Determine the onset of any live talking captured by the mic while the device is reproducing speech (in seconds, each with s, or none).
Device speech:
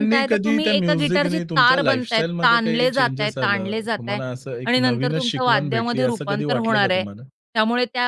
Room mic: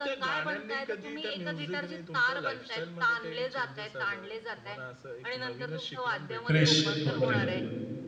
6.5 s